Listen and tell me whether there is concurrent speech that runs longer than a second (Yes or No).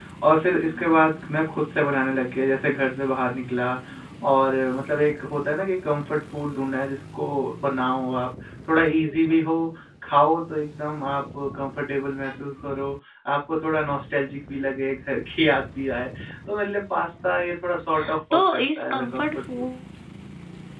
Yes